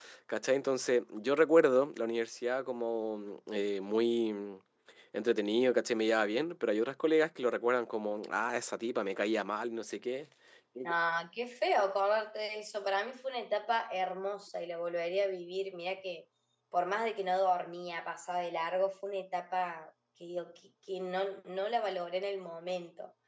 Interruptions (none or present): none